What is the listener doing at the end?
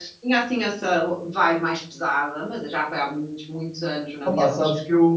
taking over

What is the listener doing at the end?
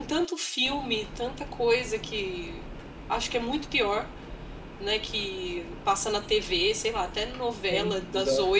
listening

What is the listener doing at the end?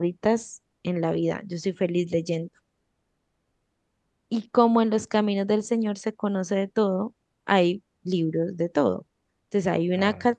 listening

